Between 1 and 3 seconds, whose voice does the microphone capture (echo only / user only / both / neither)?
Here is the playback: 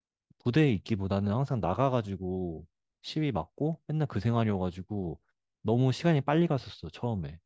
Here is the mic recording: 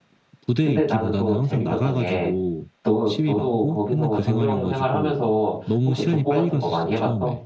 both